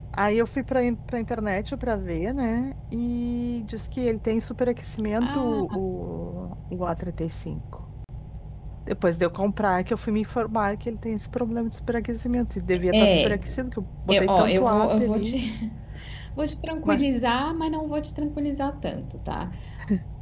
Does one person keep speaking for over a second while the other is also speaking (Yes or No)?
Yes